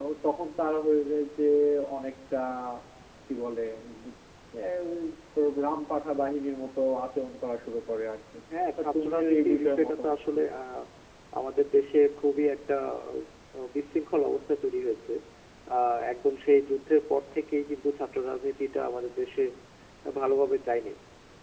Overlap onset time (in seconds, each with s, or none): 8.8 s